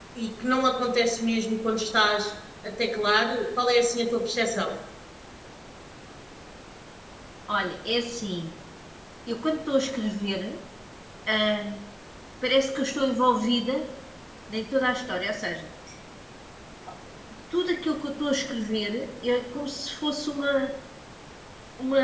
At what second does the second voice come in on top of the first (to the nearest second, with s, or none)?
none